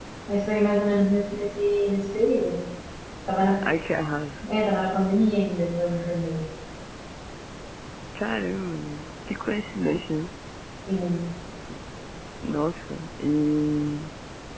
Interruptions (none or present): none